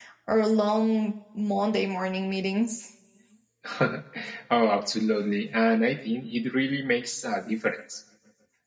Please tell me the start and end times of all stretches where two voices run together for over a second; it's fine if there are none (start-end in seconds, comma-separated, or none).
none